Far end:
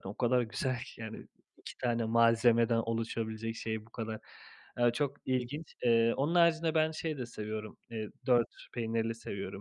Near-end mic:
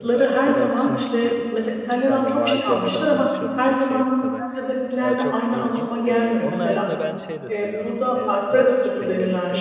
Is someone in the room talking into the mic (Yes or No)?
Yes